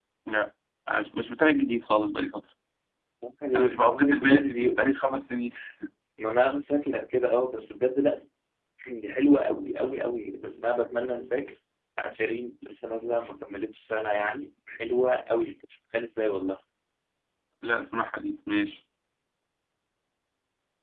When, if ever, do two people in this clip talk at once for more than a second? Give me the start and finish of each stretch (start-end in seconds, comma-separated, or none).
3.5-5.0